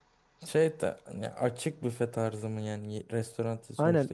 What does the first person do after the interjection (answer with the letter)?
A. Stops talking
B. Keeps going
A